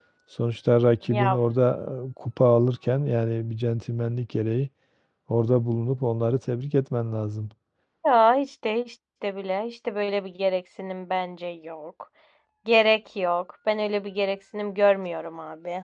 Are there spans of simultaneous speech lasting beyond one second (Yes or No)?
No